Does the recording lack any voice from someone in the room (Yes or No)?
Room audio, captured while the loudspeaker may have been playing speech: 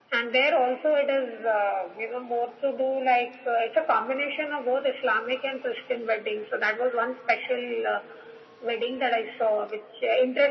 Yes